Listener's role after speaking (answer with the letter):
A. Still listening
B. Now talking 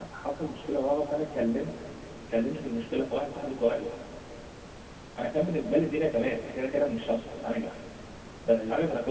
A